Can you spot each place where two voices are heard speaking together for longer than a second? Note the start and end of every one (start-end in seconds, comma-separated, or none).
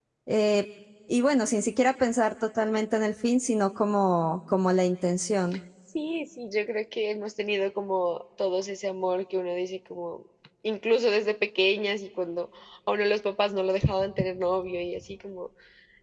none